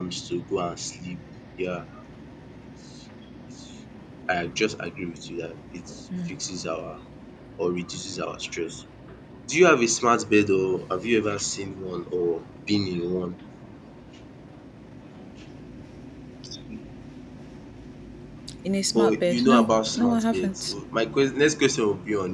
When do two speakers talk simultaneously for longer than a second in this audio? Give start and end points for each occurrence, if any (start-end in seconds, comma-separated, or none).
18.9-20.7